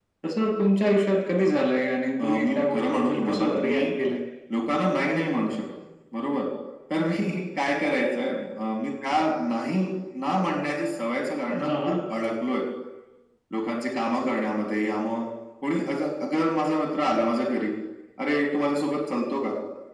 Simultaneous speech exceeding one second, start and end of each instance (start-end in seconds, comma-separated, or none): 2.2-3.8